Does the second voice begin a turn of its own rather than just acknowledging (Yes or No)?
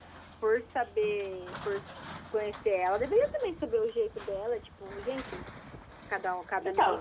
Yes